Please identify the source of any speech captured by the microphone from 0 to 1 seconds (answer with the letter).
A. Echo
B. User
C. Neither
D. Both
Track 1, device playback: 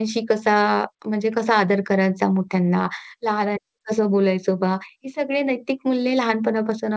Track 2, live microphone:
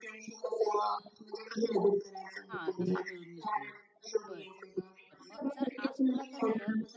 A